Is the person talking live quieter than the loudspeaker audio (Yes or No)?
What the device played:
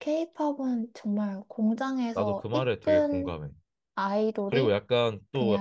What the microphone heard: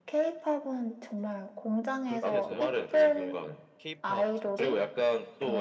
Yes